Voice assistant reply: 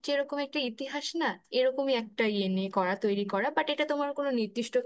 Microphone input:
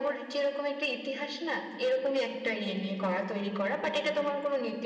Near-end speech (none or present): none